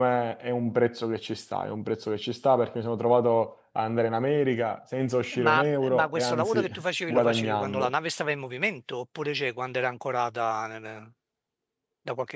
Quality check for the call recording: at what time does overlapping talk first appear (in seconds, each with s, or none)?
5.3 s